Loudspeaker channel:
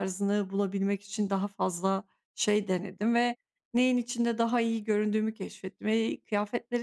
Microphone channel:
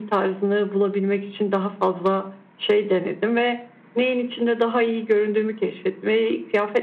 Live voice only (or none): none